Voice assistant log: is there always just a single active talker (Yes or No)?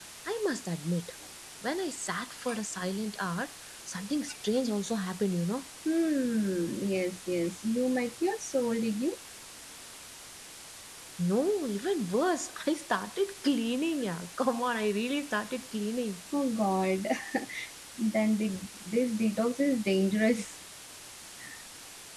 Yes